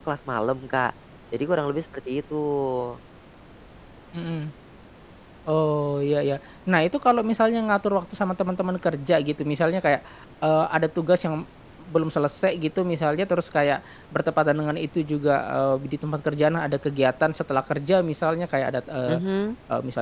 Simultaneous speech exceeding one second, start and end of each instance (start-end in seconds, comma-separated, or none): none